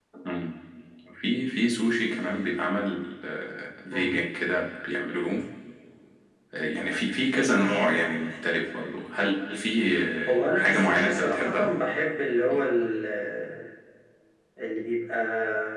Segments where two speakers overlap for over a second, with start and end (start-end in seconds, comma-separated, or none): 10.3-11.7